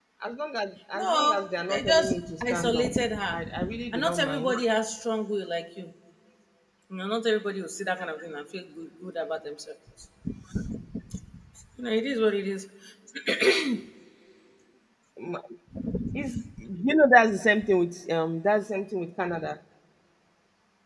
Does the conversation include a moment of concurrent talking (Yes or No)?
Yes